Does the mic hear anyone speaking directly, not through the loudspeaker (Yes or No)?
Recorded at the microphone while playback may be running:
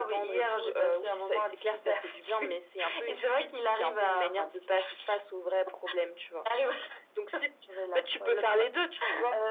No